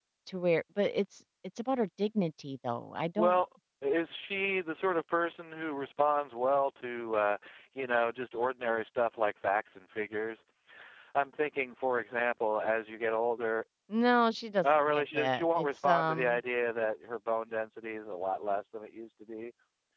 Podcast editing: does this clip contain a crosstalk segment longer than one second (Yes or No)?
Yes